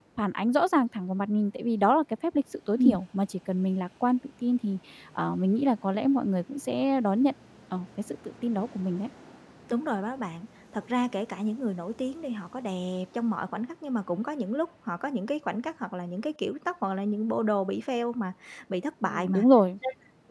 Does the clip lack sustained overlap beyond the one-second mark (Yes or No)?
Yes